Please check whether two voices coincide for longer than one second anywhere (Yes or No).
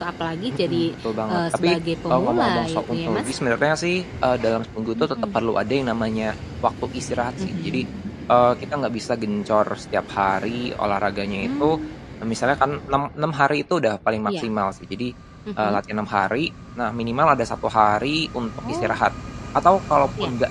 Yes